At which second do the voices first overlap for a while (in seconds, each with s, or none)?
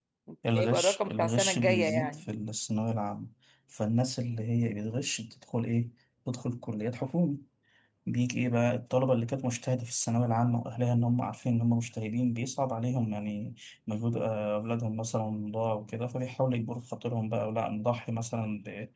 0.6 s